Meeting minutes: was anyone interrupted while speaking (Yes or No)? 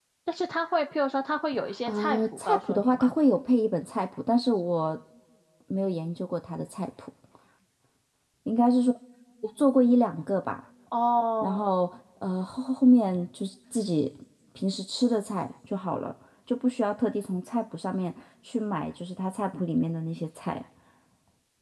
Yes